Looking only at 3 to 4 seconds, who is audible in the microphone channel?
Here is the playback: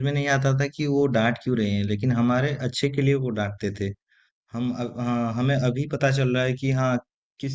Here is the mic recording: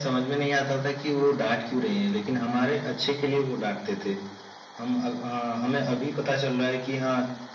echo only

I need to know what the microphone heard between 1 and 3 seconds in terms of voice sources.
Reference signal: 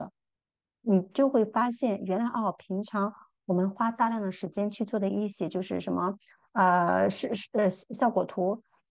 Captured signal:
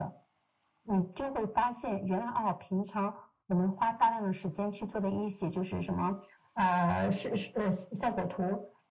echo only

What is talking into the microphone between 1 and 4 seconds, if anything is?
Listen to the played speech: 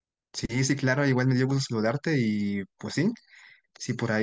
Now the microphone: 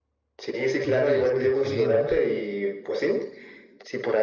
both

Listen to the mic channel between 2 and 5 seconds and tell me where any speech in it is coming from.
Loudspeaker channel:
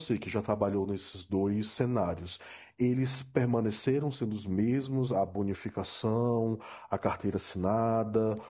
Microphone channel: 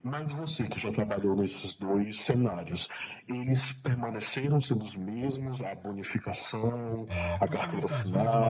echo only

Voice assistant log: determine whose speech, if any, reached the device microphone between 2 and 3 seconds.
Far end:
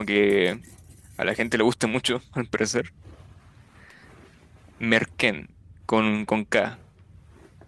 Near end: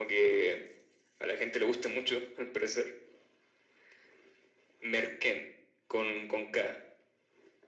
echo only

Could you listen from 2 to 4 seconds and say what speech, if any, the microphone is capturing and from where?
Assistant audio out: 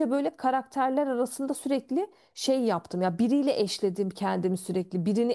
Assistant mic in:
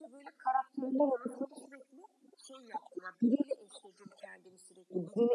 echo only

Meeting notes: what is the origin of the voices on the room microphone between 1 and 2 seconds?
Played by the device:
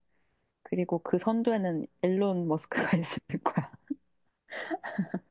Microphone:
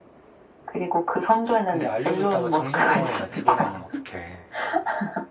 both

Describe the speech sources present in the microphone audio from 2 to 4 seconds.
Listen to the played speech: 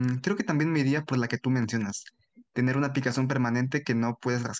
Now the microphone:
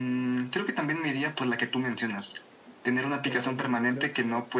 both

